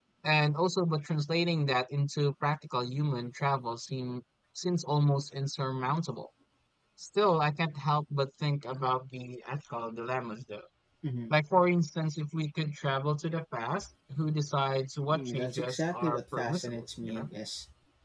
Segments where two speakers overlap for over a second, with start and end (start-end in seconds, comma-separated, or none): 15.1-17.3